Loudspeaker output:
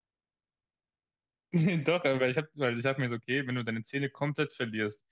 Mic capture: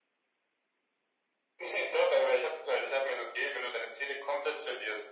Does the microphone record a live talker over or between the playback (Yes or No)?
No